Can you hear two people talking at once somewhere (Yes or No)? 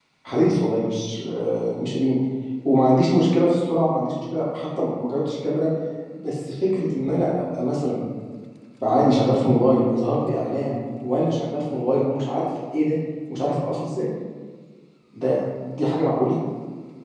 No